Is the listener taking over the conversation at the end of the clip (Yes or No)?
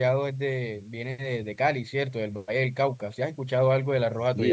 Yes